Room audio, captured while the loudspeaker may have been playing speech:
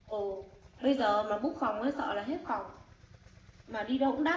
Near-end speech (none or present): none